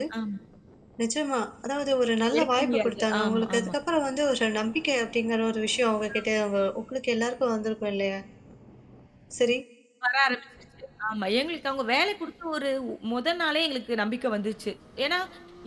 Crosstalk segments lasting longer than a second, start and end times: 2.4-3.7

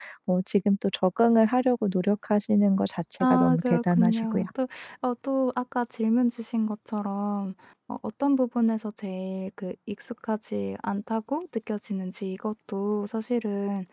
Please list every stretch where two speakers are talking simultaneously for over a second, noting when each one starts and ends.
3.2-4.4

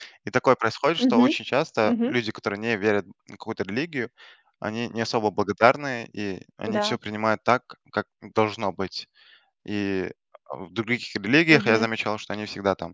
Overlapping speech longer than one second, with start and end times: none

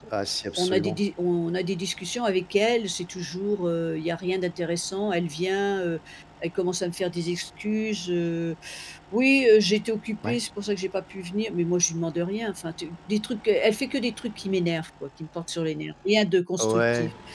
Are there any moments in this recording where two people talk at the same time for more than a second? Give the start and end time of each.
none

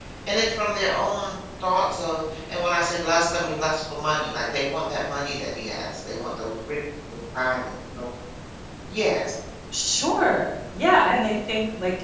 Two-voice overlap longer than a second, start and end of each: none

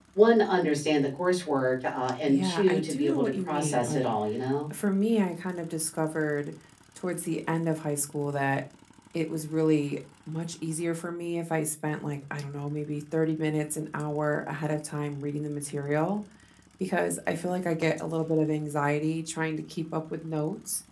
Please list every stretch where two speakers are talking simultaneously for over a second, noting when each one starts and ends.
2.3-4.0

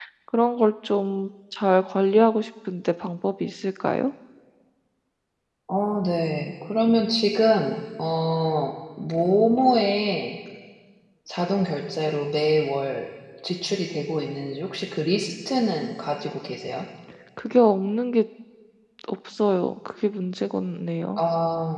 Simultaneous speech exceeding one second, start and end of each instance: none

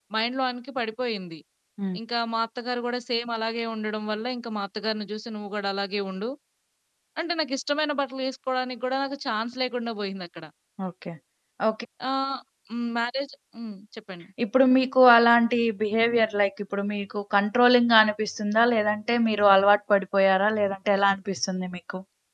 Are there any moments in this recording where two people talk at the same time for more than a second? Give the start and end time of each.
none

